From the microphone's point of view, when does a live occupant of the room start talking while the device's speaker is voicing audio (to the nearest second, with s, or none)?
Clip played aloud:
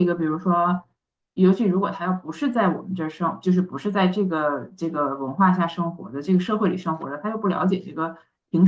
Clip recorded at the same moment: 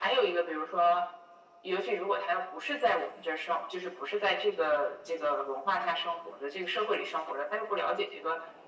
none